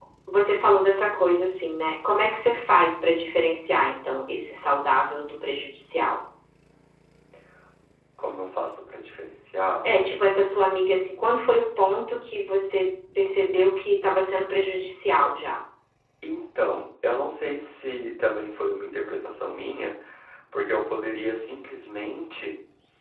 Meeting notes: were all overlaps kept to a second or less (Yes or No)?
Yes